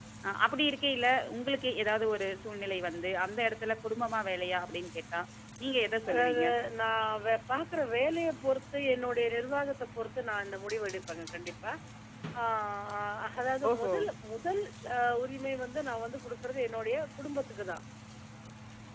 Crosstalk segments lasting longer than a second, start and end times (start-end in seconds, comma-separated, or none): none